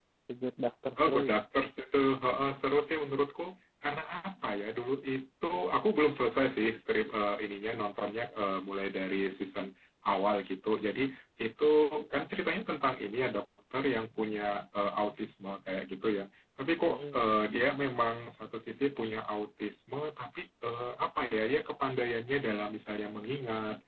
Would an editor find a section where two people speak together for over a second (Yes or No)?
No